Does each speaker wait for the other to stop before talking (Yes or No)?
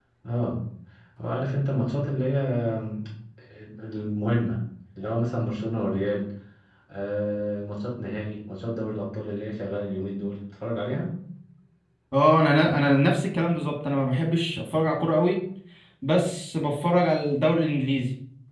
Yes